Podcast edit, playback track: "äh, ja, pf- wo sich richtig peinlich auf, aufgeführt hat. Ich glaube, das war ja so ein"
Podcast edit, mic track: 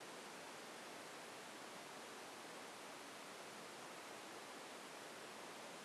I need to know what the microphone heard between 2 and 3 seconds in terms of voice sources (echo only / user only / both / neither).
neither